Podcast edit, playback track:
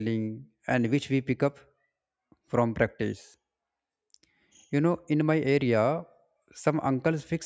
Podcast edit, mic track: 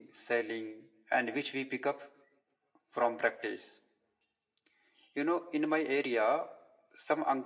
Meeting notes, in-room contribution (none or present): none